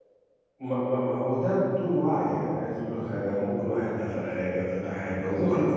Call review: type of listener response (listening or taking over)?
listening